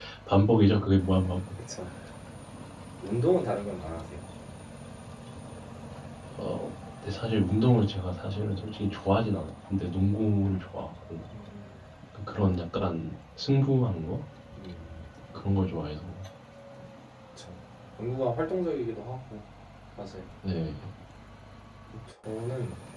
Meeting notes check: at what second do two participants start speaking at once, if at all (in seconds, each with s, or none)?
none